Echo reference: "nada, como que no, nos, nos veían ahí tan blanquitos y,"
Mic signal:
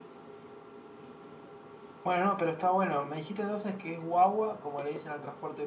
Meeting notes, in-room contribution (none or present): present